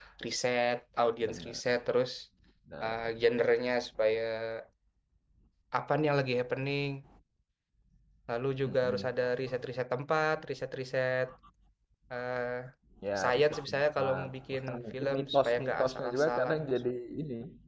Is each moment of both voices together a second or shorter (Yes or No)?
No